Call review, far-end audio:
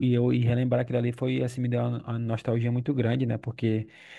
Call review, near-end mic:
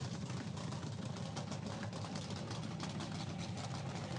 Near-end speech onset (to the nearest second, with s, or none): none